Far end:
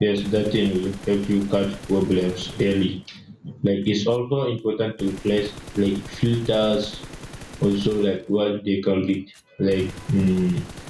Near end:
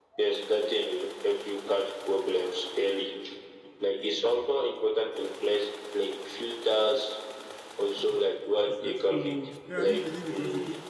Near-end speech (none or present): present